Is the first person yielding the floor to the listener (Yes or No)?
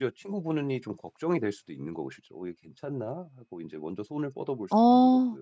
Yes